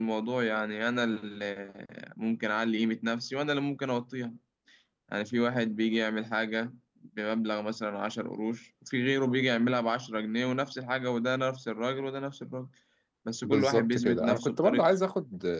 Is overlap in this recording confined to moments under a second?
No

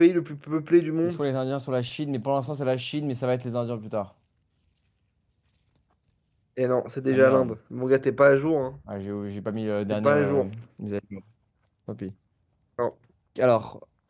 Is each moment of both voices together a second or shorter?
Yes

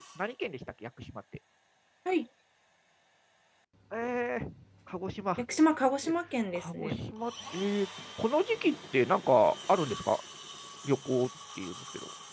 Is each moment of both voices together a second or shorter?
Yes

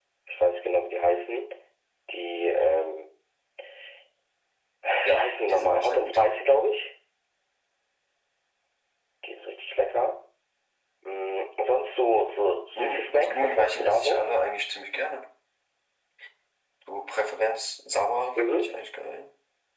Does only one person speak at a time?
No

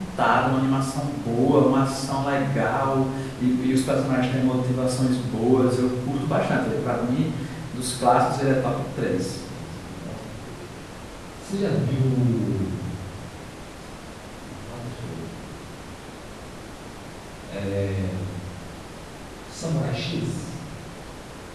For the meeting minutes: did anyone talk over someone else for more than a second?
No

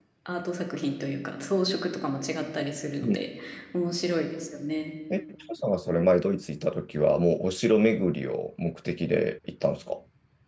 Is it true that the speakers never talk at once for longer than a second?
Yes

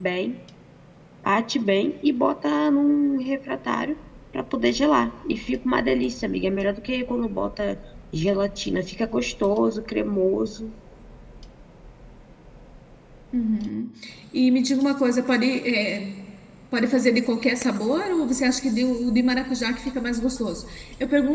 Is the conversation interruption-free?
Yes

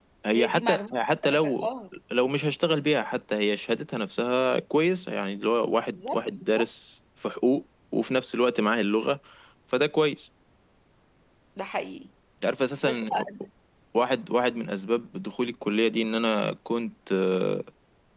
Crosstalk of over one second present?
Yes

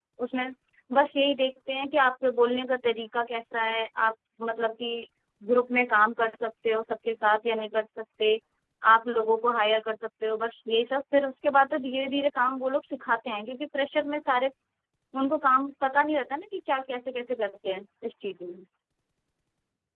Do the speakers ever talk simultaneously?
No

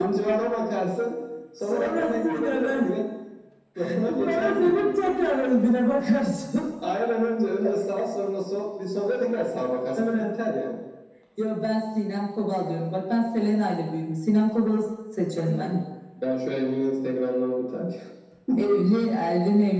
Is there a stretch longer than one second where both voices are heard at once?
Yes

